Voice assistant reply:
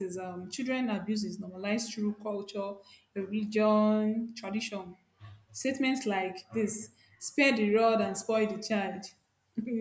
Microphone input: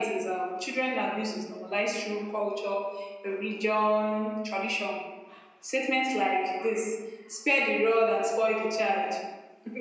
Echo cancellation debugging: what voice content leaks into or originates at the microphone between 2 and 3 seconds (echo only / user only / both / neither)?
echo only